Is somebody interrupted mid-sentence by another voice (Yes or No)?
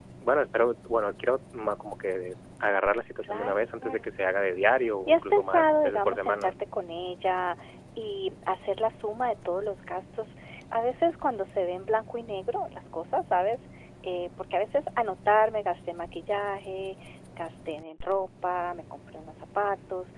Yes